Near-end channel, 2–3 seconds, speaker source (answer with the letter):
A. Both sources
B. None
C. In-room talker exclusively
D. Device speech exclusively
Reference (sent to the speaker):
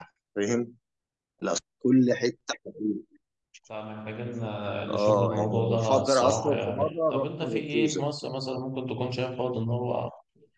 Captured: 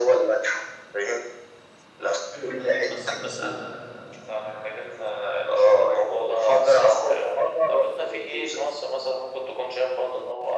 A